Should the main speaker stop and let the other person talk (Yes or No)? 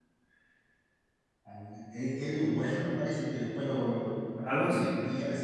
No